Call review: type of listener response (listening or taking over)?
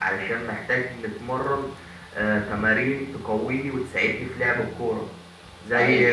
listening